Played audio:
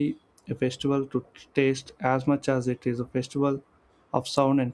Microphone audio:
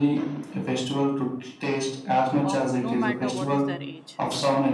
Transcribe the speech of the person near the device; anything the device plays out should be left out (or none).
of no matter what is their age.